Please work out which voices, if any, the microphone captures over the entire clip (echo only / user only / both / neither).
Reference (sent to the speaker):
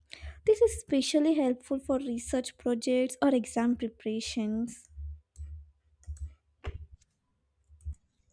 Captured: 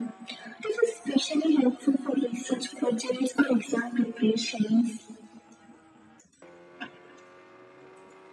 echo only